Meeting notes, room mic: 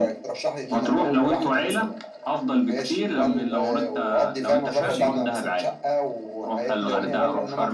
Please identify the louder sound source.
echo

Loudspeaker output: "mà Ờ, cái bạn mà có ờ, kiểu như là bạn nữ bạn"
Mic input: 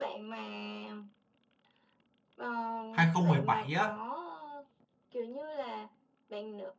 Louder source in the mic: user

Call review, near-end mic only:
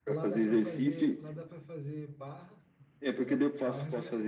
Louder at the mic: echo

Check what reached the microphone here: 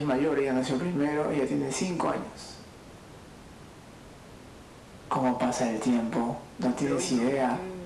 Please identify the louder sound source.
echo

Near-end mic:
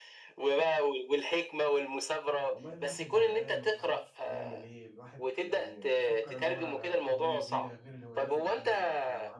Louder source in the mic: echo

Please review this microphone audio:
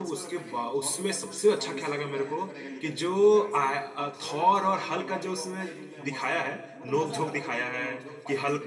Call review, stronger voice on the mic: user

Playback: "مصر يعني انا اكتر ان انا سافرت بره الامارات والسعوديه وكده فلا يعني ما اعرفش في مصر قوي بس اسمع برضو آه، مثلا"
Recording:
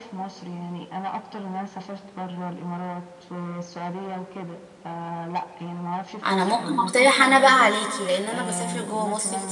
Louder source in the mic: user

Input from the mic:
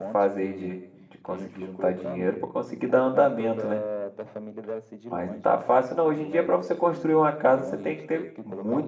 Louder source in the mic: user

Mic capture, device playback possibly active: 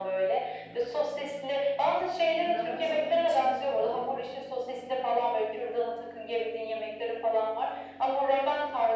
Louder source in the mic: echo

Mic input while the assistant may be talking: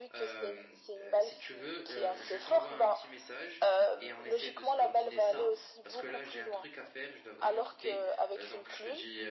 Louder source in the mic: echo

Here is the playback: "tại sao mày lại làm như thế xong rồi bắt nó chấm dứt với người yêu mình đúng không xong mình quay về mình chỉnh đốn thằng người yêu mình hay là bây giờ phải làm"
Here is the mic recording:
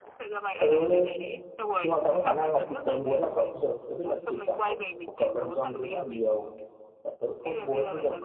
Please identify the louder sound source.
user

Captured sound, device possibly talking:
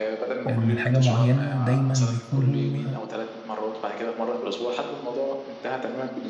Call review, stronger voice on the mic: user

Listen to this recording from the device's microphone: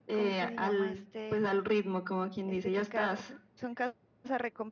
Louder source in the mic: echo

